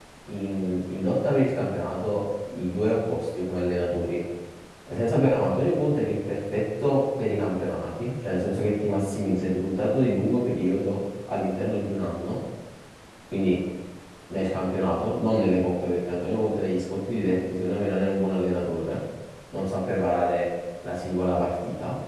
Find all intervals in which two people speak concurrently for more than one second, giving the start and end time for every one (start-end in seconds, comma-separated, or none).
none